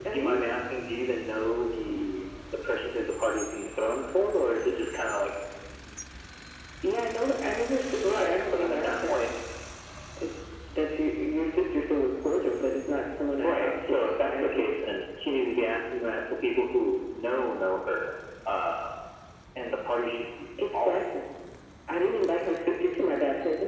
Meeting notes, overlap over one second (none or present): present